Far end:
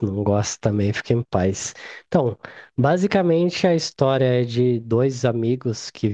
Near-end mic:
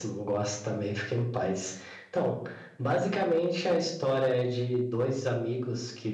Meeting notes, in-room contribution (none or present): none